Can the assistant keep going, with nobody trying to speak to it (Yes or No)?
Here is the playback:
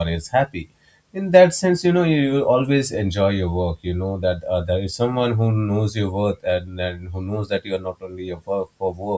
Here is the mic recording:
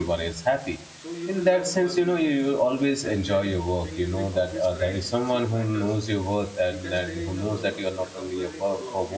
No